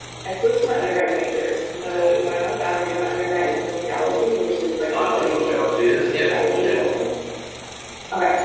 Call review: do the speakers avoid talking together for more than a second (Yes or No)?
No